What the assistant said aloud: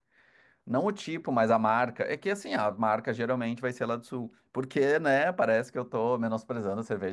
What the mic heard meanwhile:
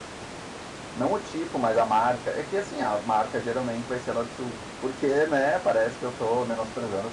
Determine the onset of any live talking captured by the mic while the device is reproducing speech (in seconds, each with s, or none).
none